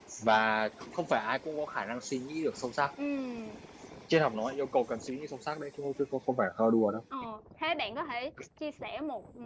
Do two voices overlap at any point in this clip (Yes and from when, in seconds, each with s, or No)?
No